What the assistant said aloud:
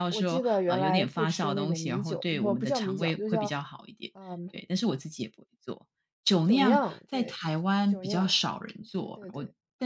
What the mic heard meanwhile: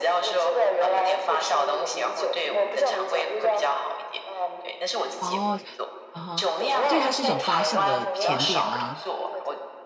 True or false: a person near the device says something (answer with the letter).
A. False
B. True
B